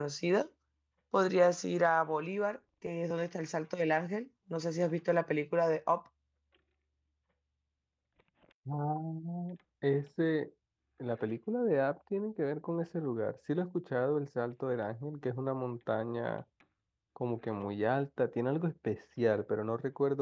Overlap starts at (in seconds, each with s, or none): none